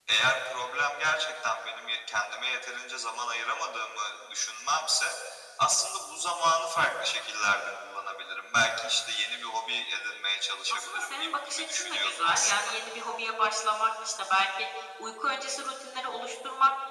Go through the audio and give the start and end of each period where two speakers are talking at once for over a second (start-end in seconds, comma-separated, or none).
10.7-12.5